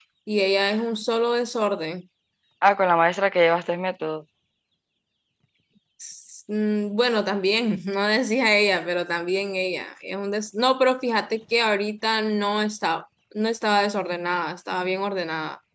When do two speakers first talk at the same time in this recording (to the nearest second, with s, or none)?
none